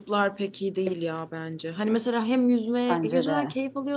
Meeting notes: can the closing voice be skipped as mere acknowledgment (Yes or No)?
Yes